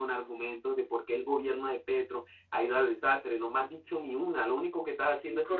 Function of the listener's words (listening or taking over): taking over